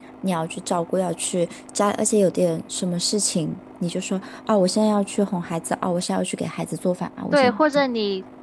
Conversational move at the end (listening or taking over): taking over